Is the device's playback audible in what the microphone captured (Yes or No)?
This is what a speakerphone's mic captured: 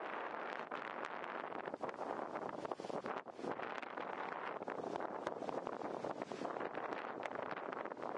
No